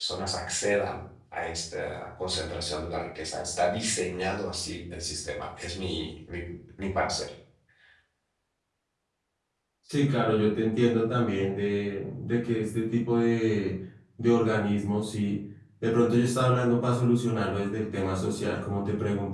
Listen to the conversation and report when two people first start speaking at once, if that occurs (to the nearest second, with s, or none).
none